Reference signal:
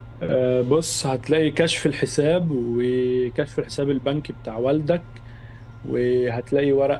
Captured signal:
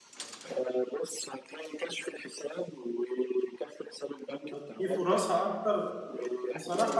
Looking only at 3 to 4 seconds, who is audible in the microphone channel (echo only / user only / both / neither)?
echo only